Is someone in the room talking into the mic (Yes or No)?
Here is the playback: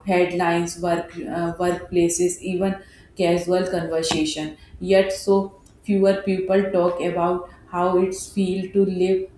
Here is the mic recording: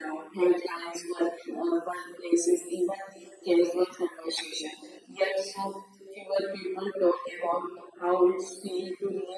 No